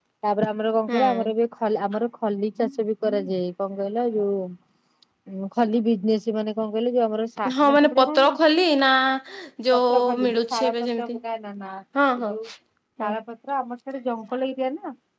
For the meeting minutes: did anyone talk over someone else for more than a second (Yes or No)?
Yes